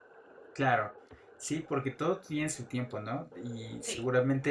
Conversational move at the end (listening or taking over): listening